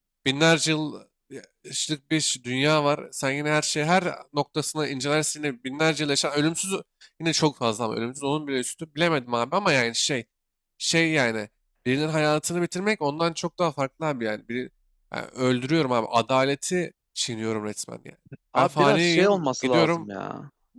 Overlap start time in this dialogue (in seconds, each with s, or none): 18.6 s